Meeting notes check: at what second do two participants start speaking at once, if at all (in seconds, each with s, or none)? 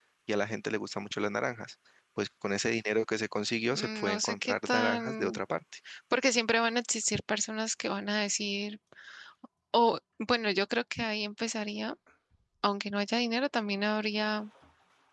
3.7 s